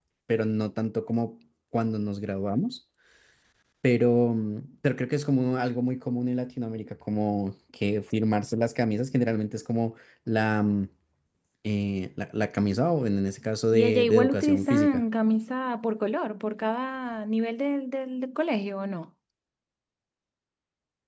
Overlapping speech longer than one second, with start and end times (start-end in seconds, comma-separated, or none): 13.7-15.0